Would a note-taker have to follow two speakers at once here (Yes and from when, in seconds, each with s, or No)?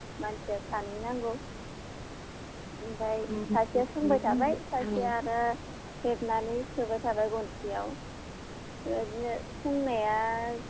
Yes, from 3.3 s